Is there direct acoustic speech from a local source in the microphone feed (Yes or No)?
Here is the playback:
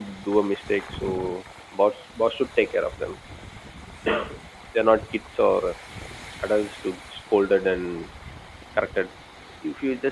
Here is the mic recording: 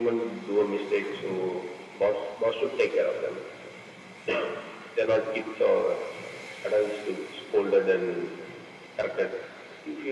No